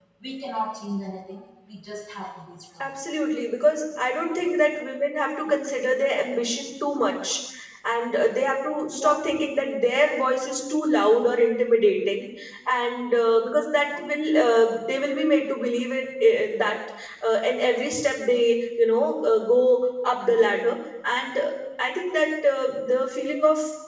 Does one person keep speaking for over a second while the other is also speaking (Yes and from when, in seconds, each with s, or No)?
No